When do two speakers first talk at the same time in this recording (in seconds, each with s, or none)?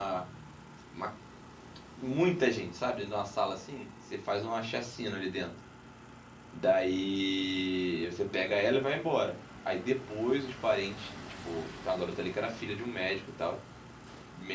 none